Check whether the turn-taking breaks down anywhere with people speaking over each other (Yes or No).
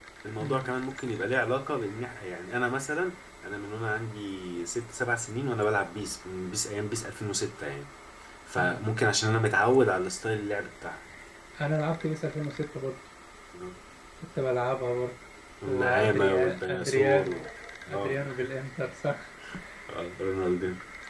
Yes